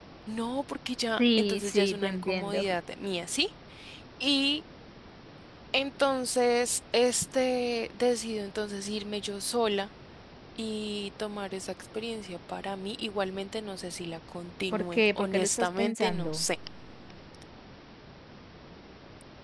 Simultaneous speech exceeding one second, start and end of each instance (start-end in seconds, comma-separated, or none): 1.2-2.6, 14.7-16.4